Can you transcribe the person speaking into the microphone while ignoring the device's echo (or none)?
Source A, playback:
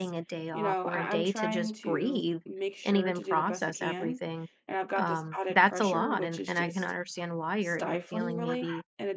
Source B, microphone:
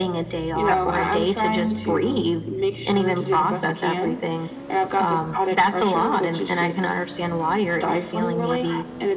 exactly.